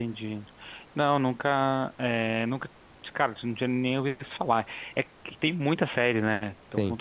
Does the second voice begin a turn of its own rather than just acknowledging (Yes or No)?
No